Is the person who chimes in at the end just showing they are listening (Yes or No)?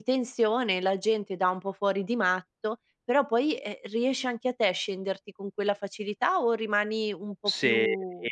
No